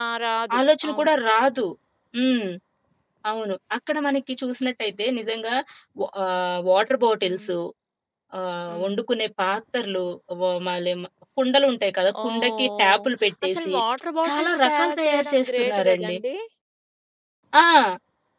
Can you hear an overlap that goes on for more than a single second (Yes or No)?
Yes